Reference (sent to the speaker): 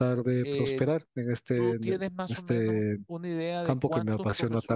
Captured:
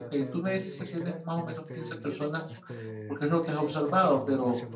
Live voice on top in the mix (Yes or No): Yes